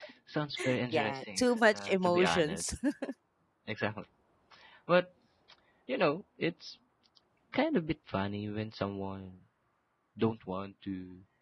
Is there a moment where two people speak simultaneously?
Yes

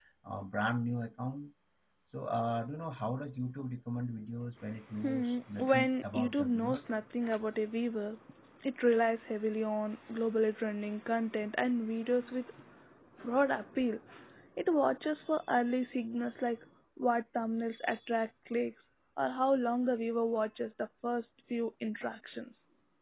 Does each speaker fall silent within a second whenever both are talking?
No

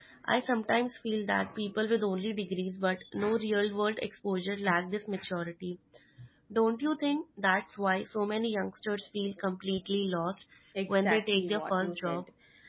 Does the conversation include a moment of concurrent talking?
Yes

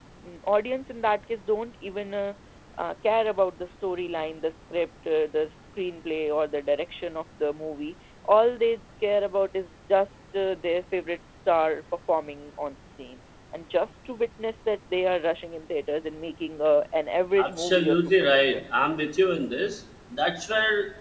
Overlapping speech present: Yes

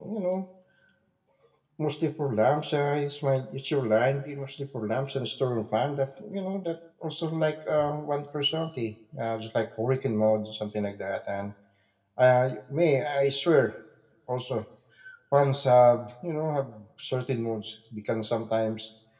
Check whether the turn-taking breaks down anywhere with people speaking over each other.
No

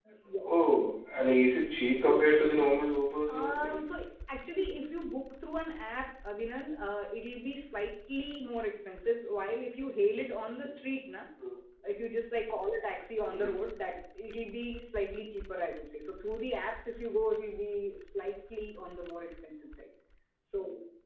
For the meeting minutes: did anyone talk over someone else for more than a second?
No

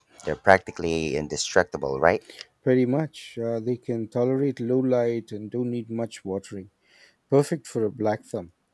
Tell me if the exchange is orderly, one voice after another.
Yes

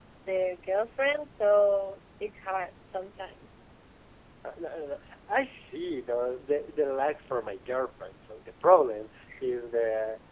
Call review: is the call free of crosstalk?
Yes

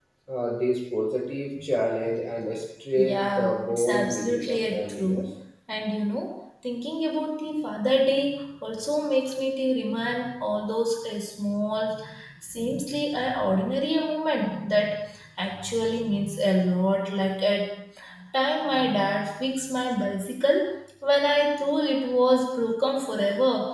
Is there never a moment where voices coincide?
No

